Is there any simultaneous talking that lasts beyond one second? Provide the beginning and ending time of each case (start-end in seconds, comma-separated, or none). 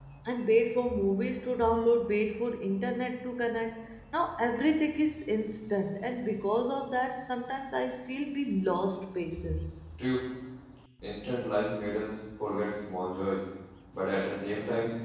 none